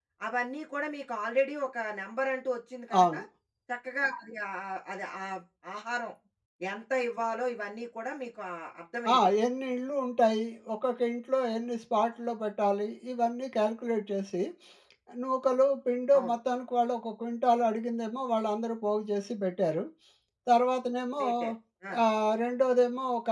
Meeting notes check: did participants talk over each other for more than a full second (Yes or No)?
No